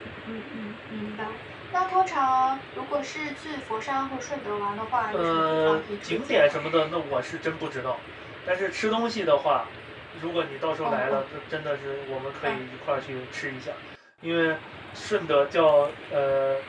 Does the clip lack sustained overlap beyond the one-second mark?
No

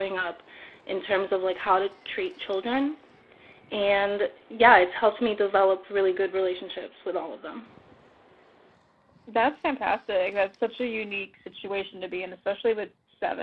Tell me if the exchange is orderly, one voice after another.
Yes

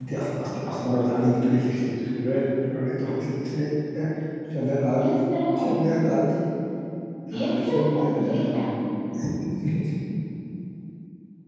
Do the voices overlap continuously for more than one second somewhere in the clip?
Yes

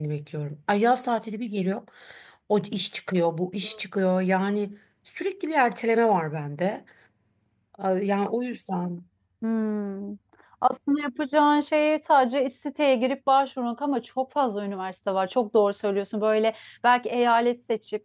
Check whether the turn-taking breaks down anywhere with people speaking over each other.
No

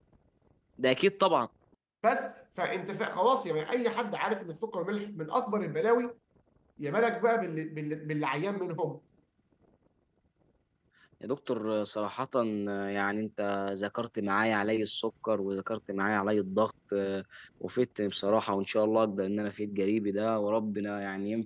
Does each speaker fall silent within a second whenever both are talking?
Yes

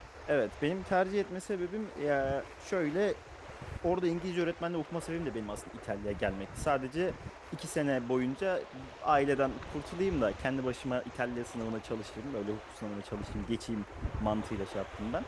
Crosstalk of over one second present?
No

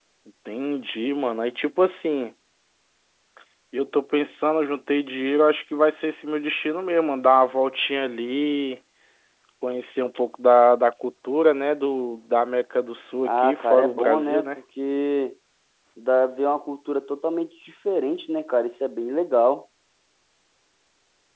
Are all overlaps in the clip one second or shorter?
No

